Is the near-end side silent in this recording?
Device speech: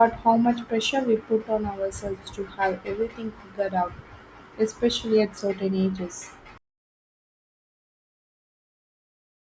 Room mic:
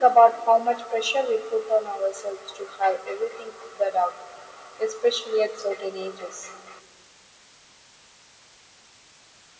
Yes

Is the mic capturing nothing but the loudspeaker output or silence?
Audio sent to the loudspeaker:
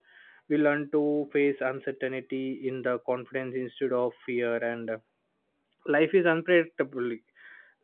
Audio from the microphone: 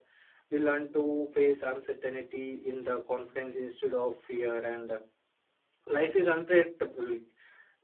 Yes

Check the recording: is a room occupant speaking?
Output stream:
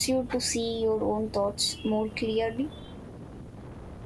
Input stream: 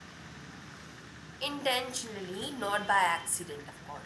Yes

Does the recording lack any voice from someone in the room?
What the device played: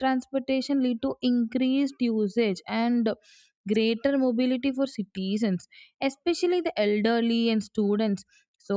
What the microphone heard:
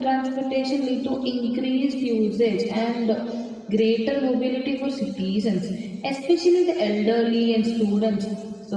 Yes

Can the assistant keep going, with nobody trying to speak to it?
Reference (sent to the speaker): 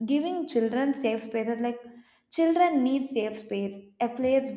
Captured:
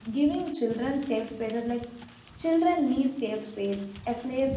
Yes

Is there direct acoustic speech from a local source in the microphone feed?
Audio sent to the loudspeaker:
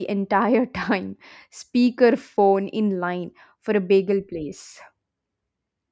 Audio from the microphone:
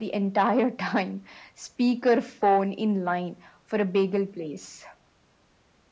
No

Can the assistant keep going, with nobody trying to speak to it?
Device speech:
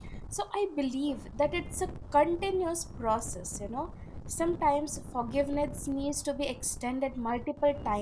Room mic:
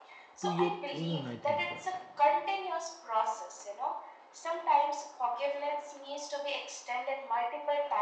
No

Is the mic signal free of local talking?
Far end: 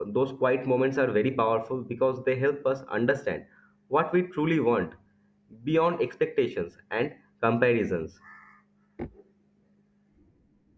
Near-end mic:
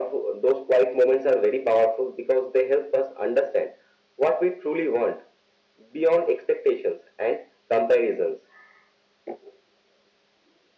Yes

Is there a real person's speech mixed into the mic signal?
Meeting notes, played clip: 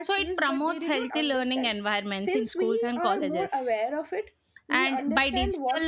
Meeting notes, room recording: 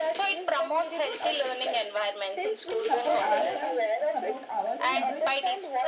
Yes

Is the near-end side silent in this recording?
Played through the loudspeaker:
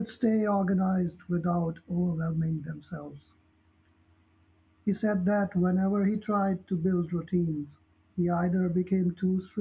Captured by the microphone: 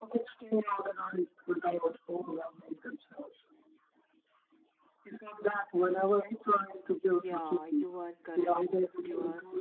No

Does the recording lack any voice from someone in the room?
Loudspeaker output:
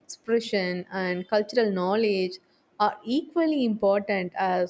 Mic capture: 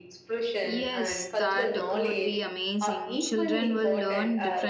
No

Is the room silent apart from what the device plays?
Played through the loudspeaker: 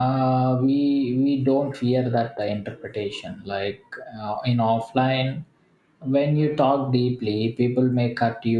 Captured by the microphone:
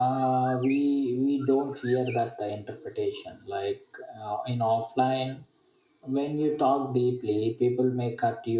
Yes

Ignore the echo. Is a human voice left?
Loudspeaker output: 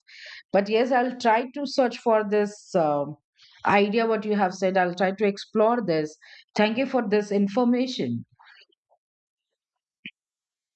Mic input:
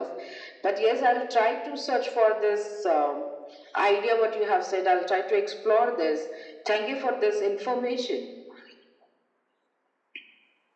No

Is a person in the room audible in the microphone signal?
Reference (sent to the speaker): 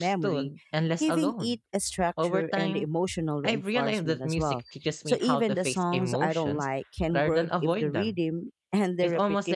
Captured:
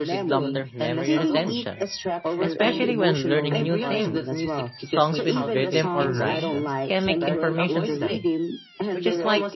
Yes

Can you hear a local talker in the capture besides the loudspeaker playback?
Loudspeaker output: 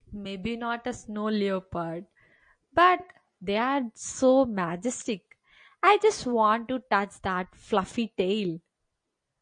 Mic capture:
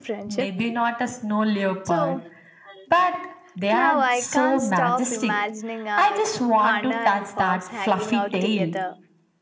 Yes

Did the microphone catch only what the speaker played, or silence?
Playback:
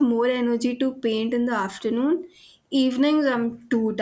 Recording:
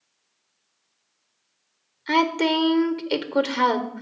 No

